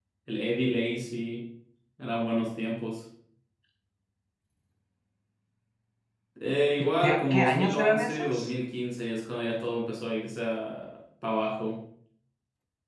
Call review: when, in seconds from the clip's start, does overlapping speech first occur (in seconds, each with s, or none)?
6.8 s